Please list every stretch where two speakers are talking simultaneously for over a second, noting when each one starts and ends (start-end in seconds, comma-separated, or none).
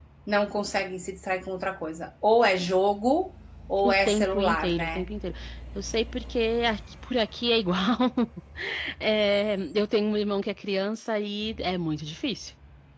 3.8-5.1